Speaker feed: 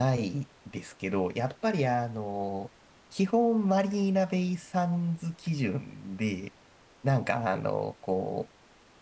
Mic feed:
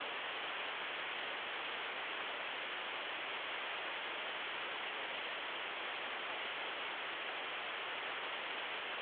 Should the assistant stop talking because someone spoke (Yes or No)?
No